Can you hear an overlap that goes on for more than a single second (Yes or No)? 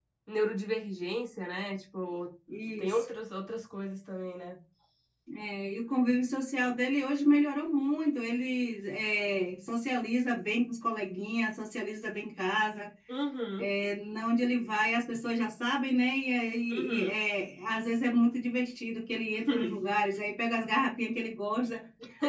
No